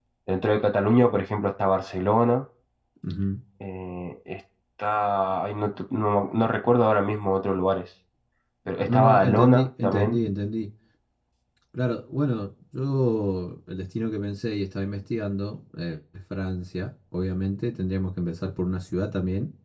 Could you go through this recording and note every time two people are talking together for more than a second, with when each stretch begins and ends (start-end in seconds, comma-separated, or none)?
8.8-10.2